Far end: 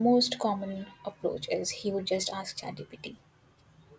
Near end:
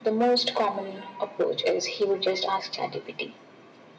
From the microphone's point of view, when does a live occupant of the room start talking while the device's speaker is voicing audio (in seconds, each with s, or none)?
none